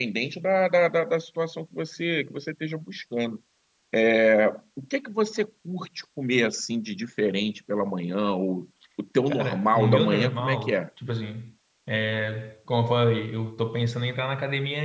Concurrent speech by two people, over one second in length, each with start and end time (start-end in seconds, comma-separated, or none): 9.3-10.8